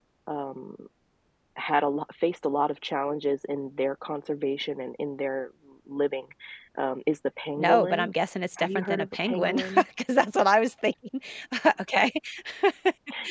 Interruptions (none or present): present